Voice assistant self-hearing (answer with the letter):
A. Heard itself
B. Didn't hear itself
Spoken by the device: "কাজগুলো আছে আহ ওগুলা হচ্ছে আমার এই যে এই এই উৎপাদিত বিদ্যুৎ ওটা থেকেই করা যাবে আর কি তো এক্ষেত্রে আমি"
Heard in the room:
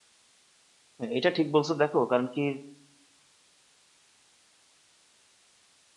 B